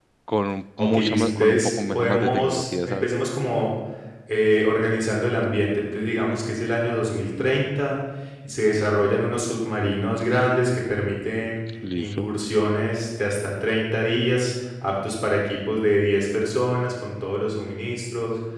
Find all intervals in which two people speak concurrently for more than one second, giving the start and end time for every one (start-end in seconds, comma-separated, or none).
0.8-3.1